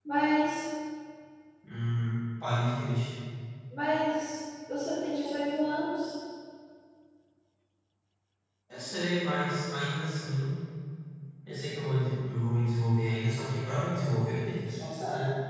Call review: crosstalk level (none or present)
none